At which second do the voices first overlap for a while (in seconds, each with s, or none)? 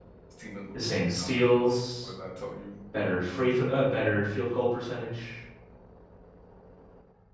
0.7 s